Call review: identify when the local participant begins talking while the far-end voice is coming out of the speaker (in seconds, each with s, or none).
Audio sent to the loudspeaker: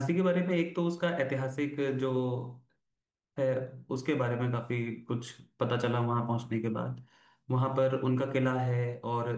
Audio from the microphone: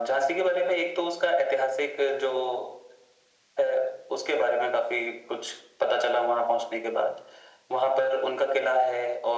none